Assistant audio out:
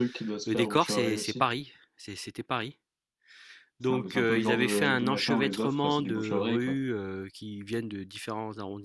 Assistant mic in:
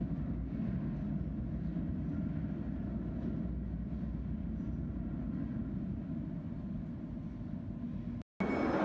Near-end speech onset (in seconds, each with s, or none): none